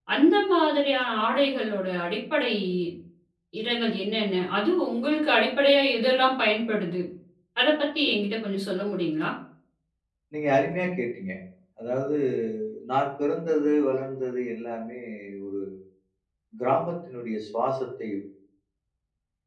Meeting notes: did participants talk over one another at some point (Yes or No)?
No